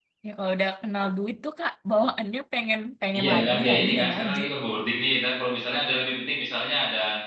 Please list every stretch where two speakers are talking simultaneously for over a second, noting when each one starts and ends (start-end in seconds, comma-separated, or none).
3.2-4.4